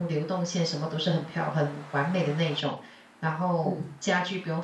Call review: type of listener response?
listening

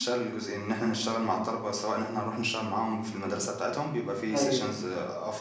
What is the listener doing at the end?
listening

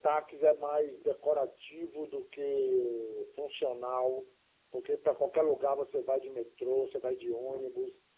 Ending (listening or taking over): listening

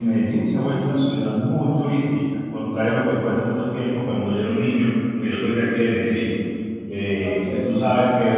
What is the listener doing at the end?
listening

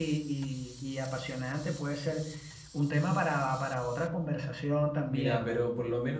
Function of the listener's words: taking over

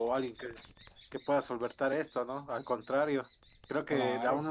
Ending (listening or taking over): listening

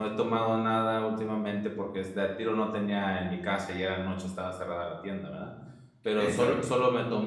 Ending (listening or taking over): listening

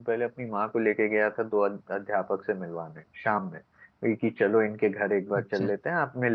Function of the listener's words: listening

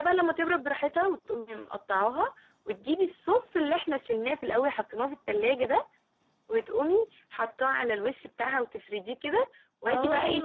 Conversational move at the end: taking over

